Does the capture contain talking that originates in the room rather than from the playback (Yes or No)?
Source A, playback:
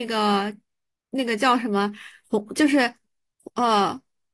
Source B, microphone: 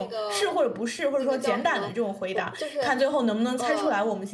Yes